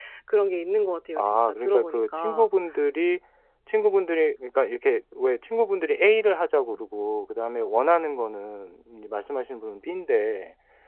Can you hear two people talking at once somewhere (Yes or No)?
Yes